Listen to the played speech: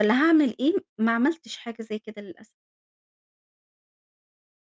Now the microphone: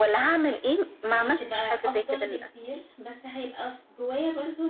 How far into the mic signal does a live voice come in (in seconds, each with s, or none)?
1.1 s